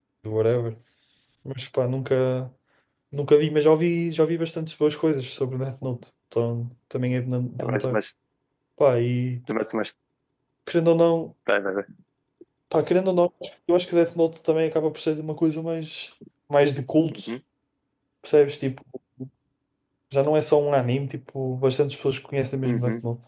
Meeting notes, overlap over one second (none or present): none